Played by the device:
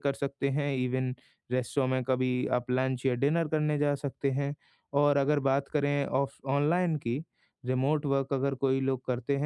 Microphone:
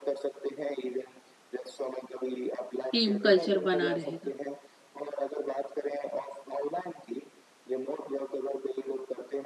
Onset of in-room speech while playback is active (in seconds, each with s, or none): 2.9 s